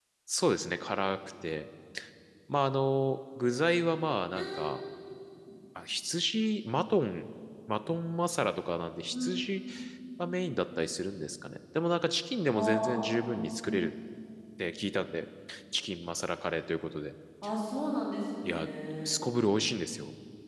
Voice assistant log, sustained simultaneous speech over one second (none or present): present